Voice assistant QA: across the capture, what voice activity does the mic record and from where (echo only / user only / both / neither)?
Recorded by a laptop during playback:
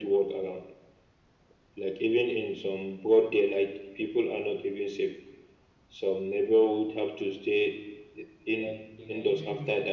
both